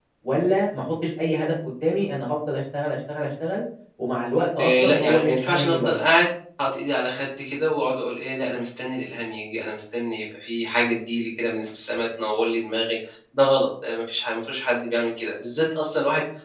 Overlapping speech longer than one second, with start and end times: 4.6-6.0

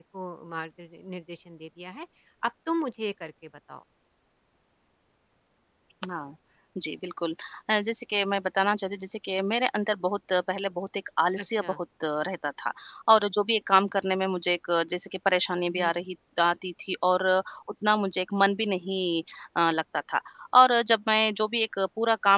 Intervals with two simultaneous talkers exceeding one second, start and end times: none

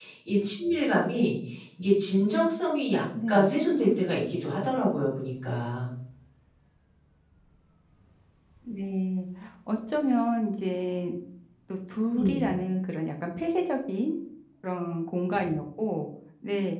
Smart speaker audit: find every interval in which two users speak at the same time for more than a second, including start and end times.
none

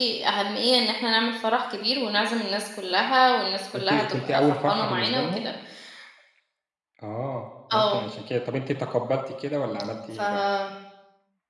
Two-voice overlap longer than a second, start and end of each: 3.7-5.4

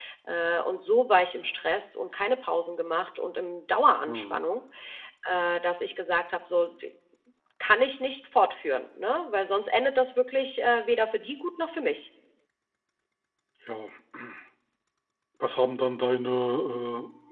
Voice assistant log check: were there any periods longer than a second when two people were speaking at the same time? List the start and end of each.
none

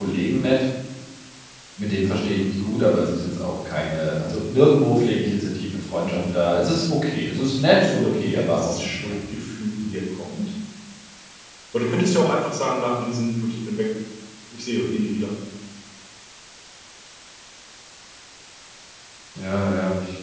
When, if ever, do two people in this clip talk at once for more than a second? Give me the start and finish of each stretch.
7.1-9.2

